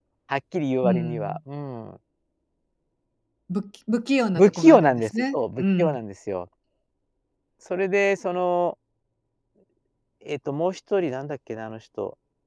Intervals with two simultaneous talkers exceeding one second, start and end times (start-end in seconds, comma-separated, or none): 4.4-6.0